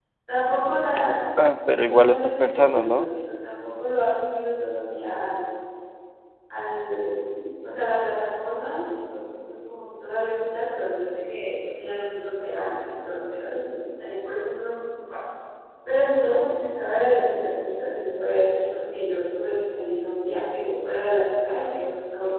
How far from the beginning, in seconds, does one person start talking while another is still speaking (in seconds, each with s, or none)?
1.8 s